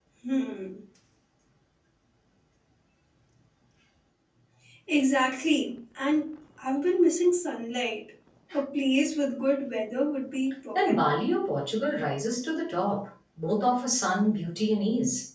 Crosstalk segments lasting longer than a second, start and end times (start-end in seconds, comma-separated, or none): none